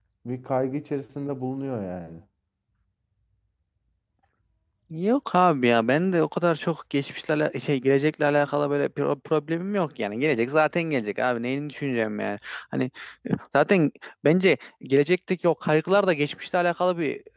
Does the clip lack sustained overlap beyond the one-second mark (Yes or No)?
Yes